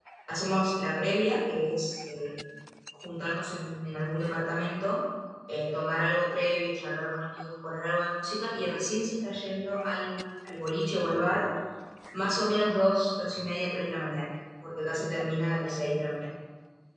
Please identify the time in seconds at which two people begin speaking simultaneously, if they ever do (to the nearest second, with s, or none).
none